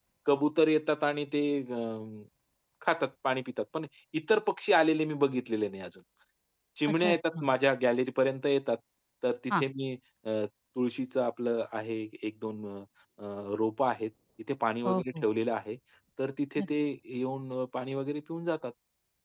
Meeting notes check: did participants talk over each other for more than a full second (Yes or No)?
No